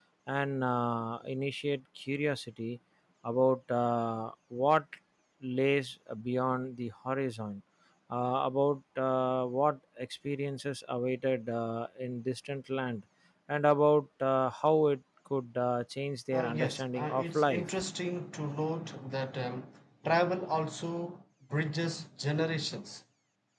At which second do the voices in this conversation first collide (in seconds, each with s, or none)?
16.3 s